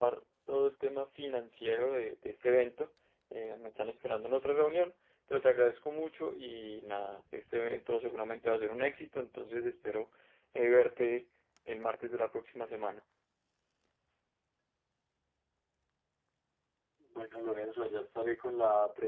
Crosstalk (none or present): none